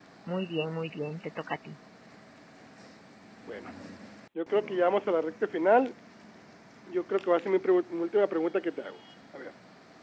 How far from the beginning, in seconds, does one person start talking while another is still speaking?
none

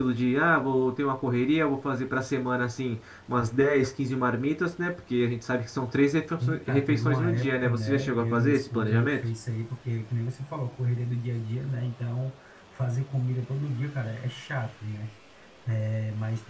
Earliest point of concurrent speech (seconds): 6 s

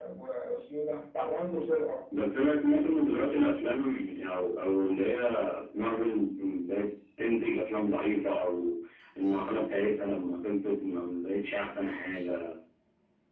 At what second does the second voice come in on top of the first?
none

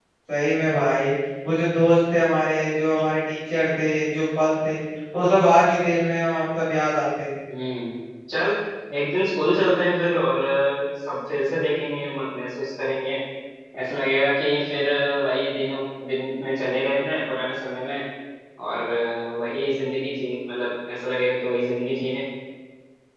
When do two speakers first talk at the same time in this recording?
none

